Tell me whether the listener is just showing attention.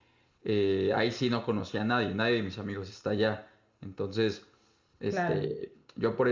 Yes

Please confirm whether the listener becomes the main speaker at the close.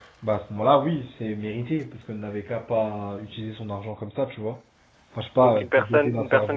Yes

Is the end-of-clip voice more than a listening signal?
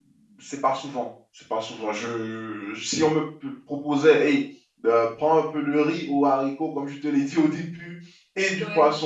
No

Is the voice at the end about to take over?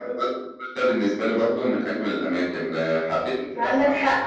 Yes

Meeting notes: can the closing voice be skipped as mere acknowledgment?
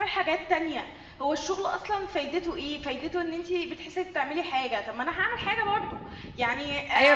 No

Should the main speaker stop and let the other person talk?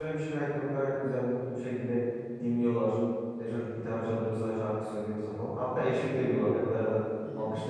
No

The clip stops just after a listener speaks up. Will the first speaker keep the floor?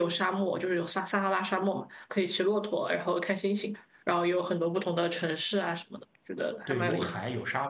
No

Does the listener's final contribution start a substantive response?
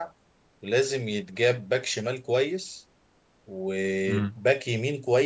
No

